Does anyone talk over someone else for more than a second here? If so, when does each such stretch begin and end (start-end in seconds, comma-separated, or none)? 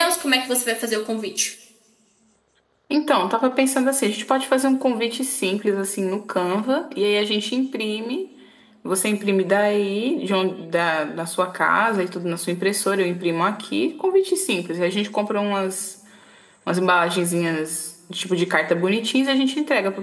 none